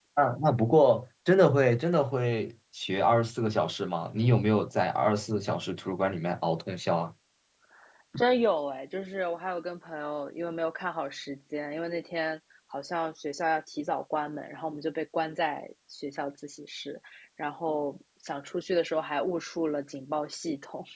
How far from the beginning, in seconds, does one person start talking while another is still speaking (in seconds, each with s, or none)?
none